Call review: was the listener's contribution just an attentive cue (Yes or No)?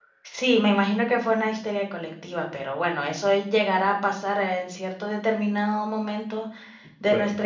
Yes